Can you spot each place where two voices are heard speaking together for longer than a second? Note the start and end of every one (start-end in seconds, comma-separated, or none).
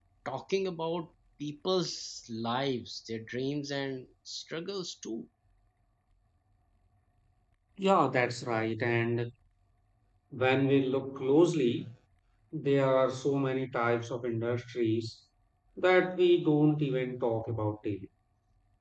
none